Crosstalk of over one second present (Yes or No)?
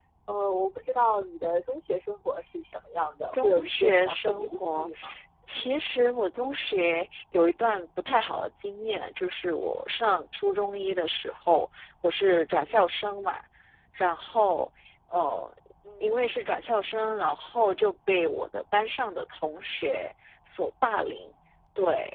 Yes